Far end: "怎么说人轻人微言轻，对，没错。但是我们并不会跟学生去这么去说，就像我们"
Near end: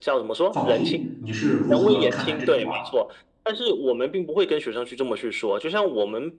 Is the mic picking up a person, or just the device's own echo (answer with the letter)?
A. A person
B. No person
A